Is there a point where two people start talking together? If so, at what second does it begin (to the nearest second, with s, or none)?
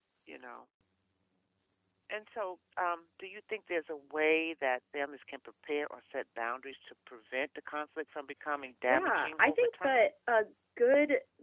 9 s